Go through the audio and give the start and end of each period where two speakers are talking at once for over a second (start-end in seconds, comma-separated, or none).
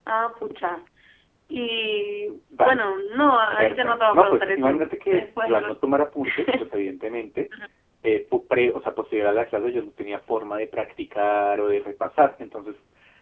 3.6-5.7